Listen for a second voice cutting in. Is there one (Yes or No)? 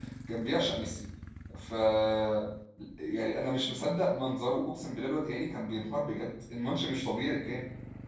No